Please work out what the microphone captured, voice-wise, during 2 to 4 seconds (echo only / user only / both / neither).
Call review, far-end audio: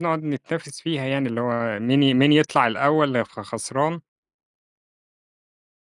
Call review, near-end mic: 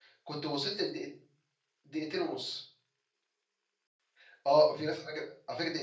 user only